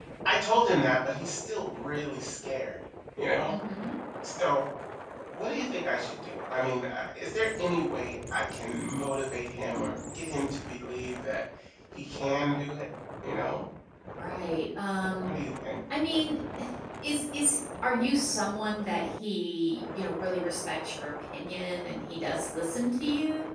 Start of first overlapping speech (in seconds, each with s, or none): none